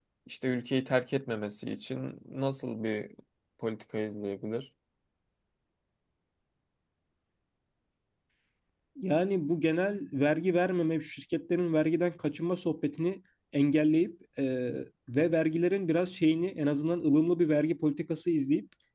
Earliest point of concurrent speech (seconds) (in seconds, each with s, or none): none